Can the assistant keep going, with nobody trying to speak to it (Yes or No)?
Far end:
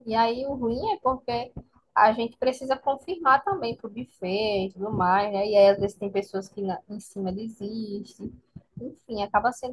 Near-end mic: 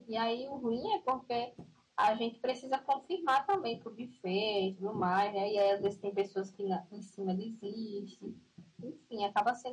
Yes